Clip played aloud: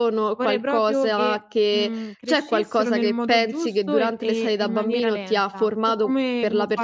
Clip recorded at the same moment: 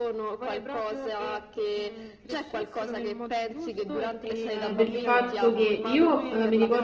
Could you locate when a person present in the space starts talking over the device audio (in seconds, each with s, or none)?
4.5 s